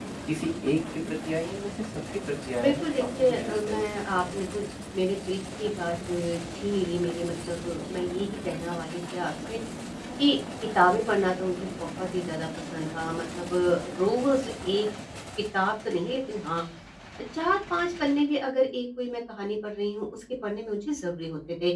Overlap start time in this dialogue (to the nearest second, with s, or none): 3 s